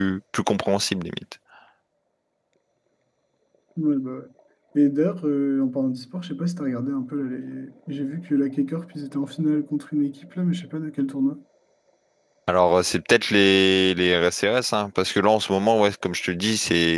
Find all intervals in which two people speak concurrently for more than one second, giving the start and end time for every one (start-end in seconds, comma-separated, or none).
none